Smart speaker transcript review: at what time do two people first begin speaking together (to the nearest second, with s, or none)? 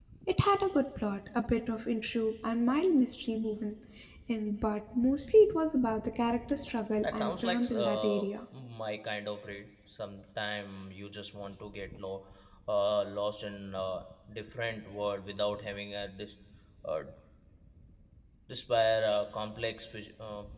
7 s